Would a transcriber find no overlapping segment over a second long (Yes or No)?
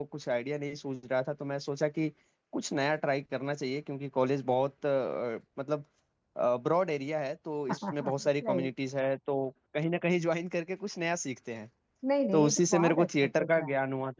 No